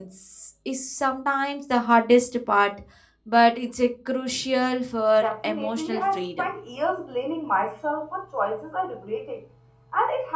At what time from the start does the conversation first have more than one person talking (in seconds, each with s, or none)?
5.2 s